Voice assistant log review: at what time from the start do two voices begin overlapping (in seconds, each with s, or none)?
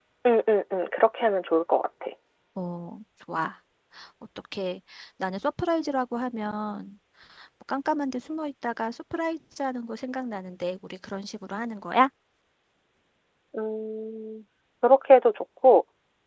none